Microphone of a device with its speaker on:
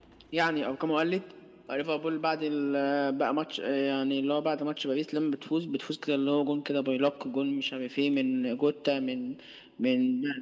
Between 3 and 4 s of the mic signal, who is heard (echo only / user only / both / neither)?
echo only